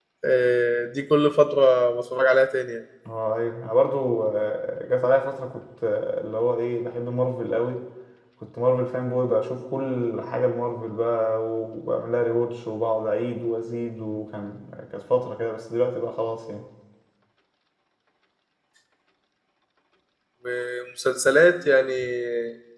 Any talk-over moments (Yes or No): No